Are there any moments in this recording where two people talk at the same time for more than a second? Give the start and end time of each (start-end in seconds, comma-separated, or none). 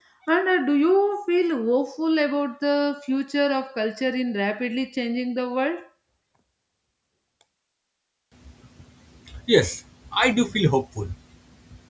none